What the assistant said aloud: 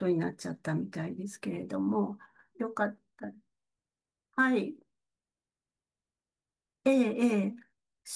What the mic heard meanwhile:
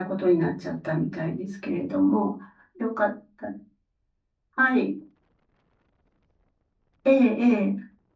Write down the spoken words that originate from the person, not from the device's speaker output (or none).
none